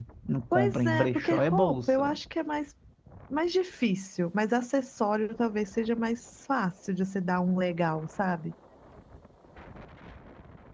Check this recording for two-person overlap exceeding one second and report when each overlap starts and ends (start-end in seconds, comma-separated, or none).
0.5-2.1